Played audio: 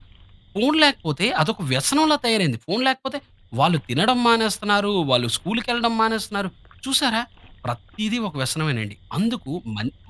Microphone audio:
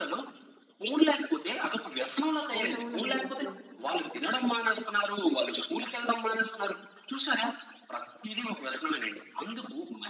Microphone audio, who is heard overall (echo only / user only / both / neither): both